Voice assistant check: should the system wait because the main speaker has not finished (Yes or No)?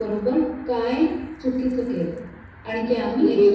No